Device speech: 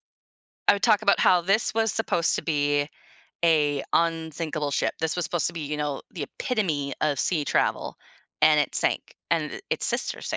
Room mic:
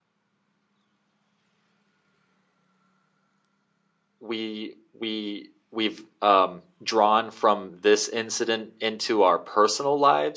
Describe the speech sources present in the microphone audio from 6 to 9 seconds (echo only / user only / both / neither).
user only